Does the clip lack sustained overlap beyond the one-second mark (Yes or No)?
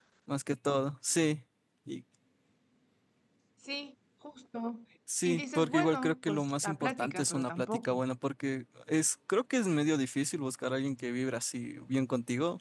No